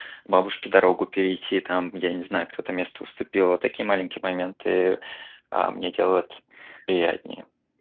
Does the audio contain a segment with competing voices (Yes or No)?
No